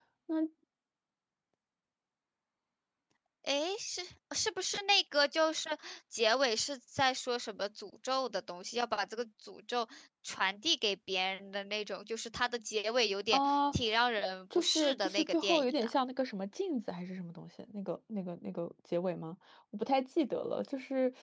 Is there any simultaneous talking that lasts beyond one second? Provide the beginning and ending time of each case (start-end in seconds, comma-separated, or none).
14.6-15.9